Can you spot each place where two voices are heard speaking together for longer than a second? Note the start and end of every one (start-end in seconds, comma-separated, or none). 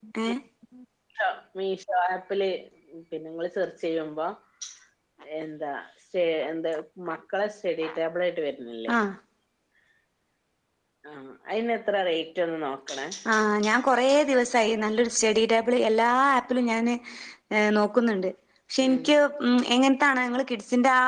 none